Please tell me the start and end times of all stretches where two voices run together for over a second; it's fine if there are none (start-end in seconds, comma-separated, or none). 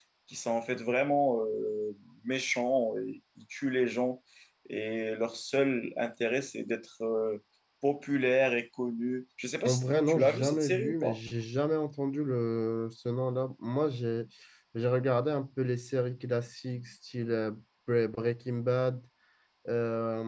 9.6-11.2